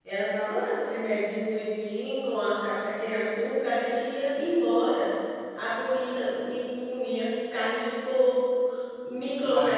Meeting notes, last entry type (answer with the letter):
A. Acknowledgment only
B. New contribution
A